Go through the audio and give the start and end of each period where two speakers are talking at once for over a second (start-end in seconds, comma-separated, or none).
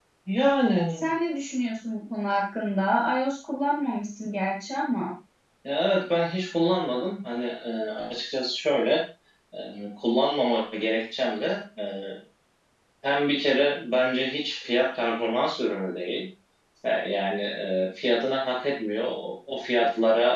none